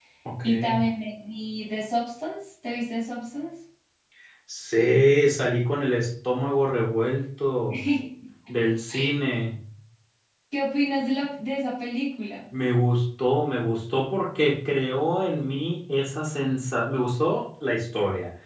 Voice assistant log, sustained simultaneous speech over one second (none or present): none